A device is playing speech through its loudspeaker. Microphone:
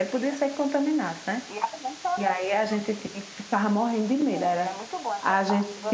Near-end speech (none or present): present